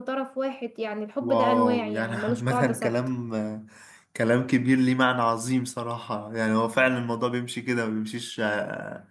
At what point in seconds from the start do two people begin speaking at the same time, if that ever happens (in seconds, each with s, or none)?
1.2 s